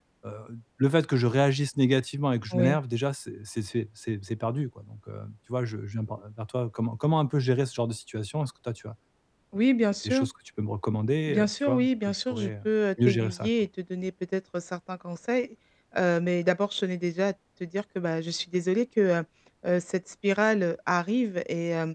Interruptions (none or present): present